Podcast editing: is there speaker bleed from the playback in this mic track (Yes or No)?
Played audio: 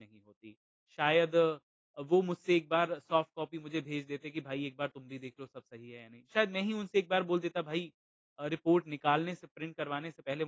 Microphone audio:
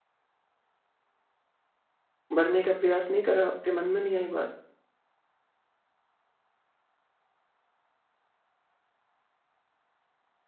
No